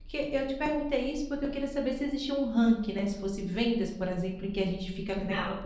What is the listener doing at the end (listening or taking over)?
listening